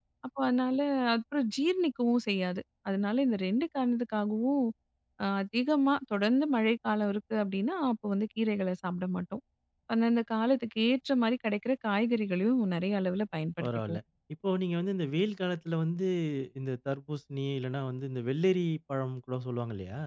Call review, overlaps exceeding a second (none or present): none